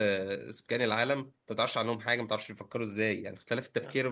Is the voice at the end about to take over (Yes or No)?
No